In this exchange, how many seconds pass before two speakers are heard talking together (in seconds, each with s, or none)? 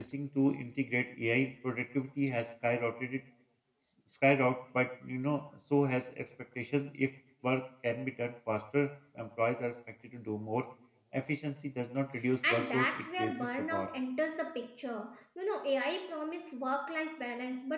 12.5 s